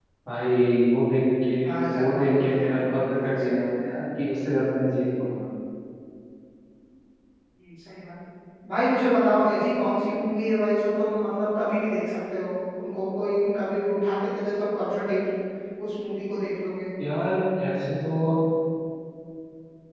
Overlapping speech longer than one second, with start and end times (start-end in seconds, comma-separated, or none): 2.0-3.8